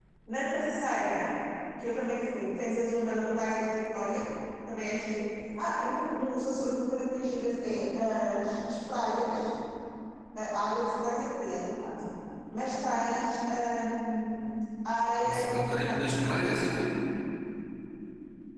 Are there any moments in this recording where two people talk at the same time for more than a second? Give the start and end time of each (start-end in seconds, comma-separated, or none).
15.2-16.7